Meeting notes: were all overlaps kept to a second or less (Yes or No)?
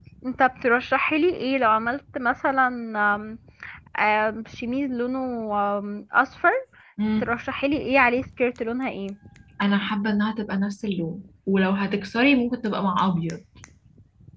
Yes